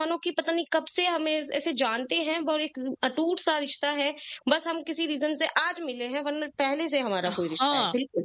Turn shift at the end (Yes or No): Yes